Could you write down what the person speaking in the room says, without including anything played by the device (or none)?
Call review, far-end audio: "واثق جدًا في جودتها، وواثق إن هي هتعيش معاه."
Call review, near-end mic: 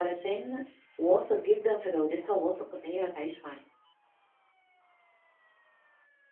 none